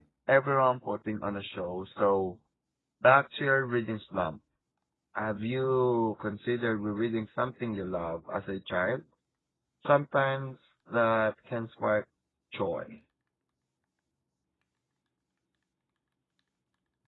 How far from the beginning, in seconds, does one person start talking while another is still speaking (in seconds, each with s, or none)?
none